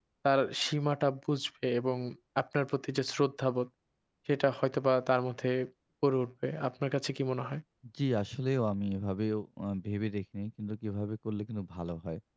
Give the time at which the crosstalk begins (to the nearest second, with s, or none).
none